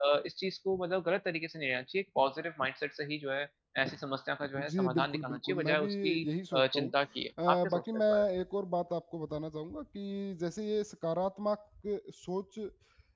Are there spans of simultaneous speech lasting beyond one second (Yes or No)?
Yes